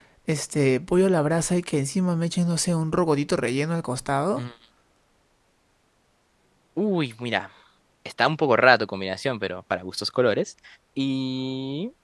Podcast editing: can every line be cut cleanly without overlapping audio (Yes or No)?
Yes